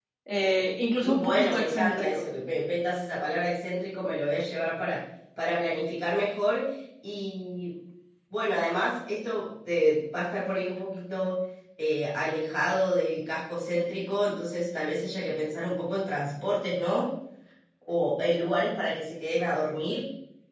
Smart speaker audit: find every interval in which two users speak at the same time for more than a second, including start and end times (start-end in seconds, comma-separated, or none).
1.0-2.2